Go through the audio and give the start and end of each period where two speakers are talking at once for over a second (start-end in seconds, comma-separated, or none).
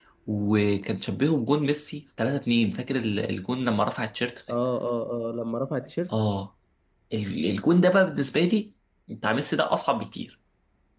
none